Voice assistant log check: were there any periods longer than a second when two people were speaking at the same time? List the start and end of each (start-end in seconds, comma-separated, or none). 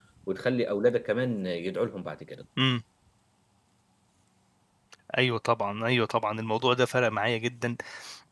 none